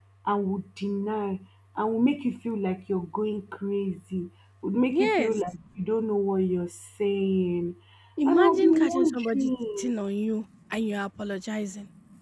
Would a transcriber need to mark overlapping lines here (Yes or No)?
Yes